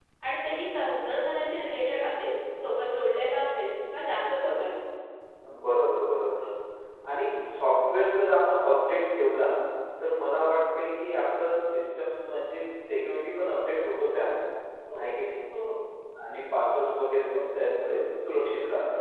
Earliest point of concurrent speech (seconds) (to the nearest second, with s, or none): none